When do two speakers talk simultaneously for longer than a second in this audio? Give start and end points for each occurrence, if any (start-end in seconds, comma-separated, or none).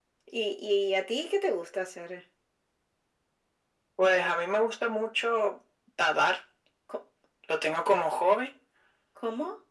none